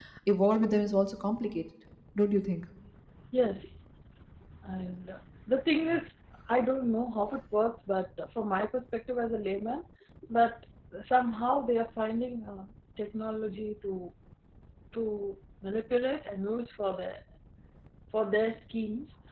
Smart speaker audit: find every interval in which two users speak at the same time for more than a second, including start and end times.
none

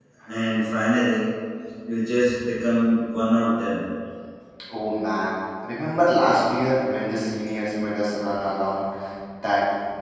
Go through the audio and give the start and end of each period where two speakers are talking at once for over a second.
none

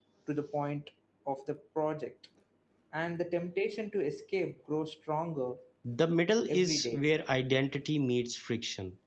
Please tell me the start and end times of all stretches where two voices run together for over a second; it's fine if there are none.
none

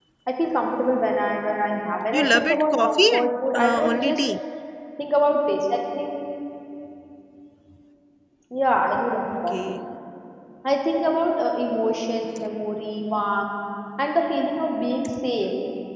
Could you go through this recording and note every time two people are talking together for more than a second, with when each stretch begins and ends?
2.1-4.2

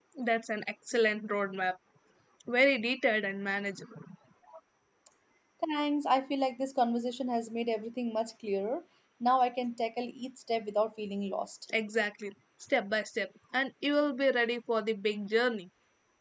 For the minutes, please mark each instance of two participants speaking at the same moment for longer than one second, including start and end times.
none

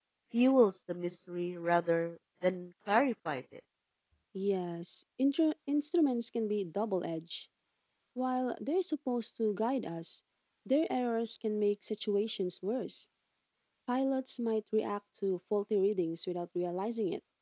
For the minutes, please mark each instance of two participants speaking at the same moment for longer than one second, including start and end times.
none

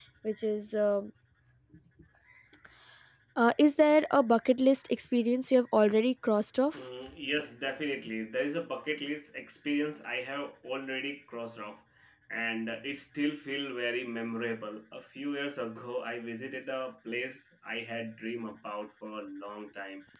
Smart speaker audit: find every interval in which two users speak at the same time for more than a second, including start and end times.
none

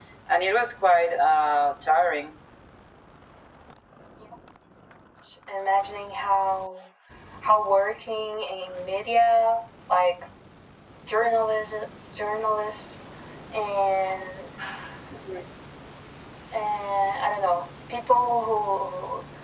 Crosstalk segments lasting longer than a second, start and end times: none

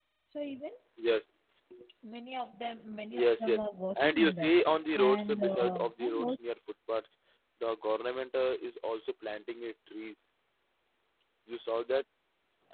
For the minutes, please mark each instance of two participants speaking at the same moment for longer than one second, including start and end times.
4.9-6.4

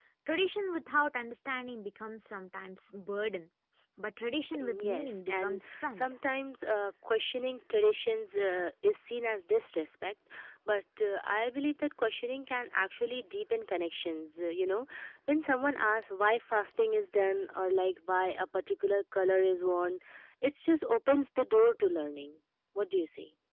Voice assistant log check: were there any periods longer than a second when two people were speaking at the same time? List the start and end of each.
4.6-6.0

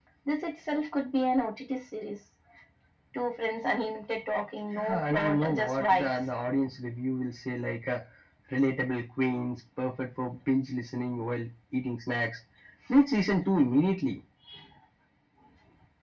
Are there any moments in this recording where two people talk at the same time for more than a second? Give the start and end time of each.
4.8-6.3

